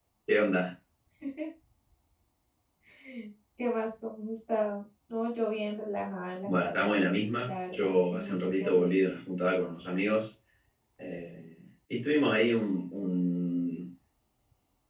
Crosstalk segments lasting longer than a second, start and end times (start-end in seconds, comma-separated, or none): 7.4-8.9